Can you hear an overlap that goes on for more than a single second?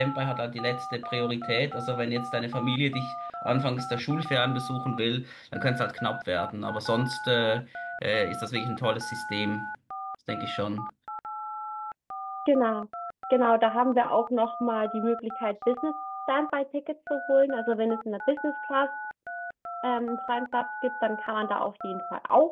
No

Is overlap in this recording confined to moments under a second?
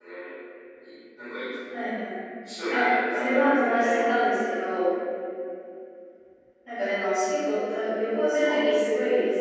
No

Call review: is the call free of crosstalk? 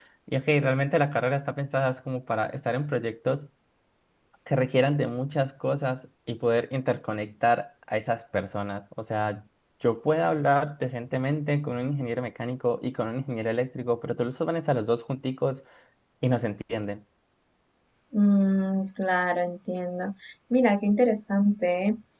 Yes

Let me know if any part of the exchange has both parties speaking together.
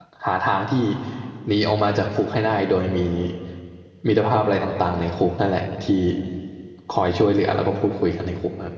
No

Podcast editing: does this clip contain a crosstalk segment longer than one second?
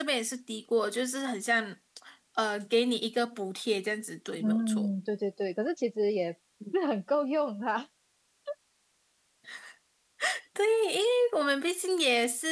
No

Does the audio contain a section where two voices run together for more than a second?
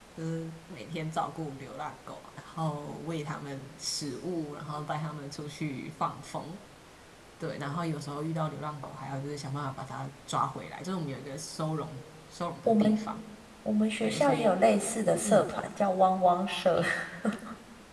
No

